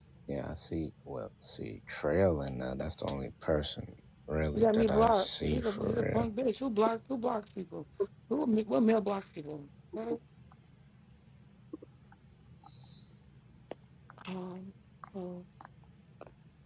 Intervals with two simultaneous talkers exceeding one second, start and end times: 4.5-6.3

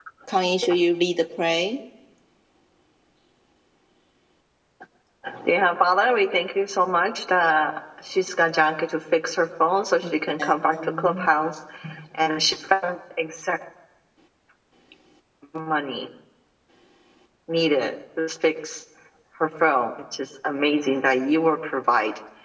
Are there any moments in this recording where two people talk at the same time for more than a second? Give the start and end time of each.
10.0-11.3

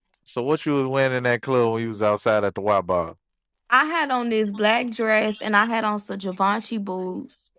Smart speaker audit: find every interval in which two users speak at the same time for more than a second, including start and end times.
none

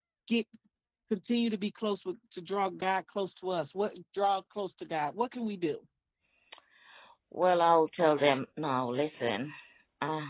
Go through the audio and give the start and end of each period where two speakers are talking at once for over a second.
none

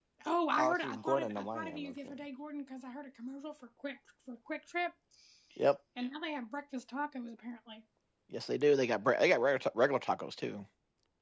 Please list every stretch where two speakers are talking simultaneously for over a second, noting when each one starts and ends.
0.6-1.9

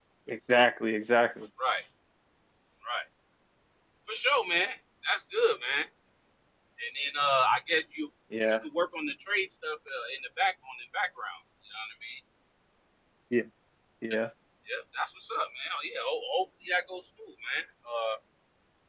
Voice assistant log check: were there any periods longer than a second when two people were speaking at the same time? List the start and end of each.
none

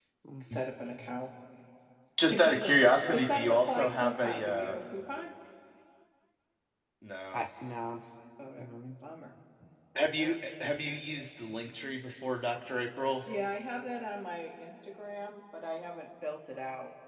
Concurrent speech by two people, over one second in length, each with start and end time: 3.1-4.8

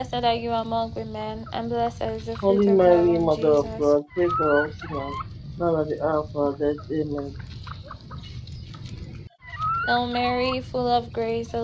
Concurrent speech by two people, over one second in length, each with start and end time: 2.5-3.9

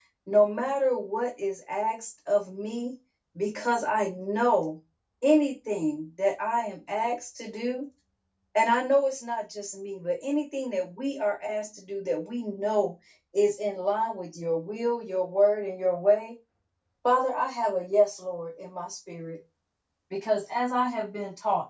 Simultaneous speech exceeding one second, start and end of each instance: none

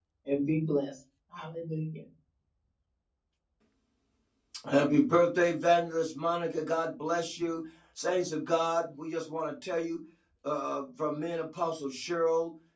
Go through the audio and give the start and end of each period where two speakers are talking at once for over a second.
none

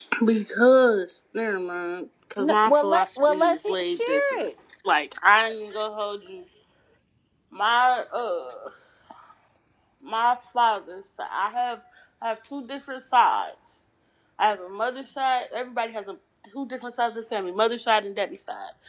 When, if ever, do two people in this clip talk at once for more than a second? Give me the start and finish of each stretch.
2.4-4.5

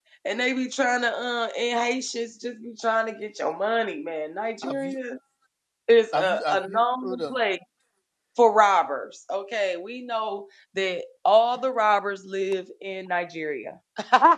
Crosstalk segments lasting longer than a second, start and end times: 6.1-7.3

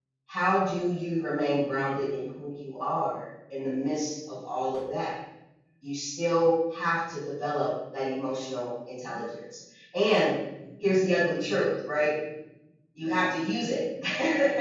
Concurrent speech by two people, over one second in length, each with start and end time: none

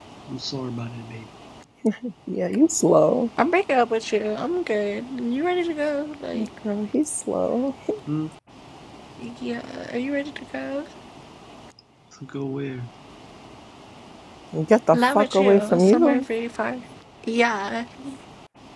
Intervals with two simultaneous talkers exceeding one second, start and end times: 14.9-16.2

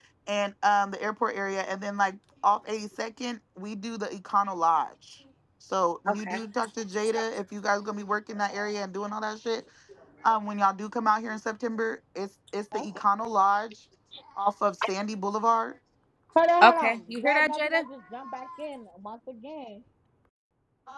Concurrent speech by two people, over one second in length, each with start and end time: 16.6-17.8

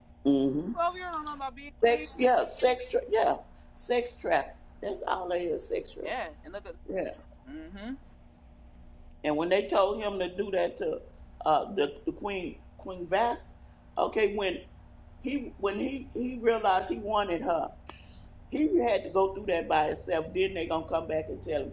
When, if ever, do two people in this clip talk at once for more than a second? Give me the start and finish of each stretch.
none

